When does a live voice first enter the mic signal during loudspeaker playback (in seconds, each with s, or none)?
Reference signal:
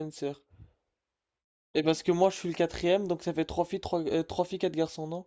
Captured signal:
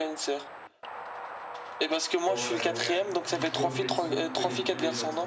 2.3 s